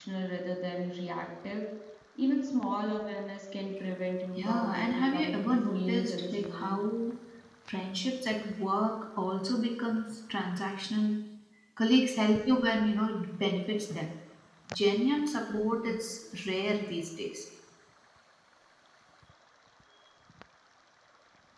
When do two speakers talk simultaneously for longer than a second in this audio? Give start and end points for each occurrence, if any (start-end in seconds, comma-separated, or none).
4.4-6.8